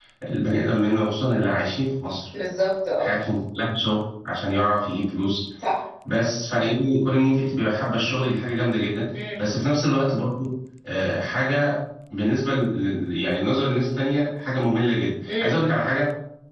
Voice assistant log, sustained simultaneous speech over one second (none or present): none